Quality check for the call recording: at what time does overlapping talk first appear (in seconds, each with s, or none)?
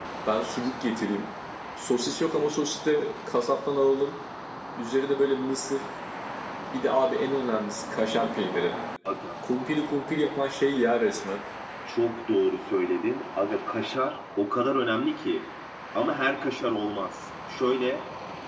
none